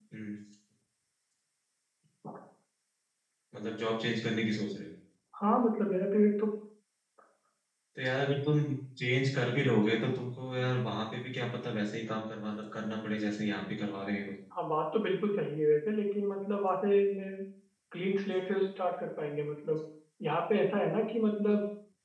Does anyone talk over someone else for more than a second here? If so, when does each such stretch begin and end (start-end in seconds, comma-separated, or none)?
none